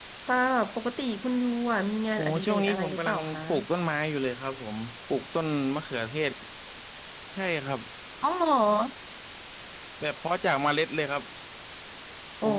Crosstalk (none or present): present